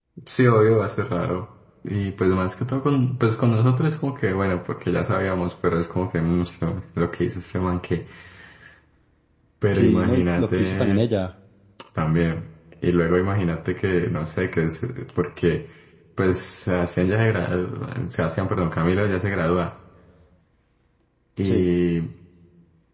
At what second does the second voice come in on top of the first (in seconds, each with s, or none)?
9.7 s